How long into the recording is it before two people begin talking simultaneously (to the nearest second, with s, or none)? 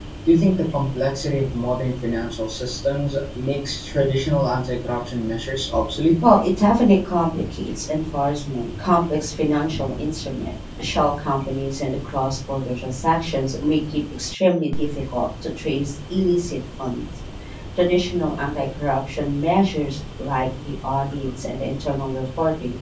none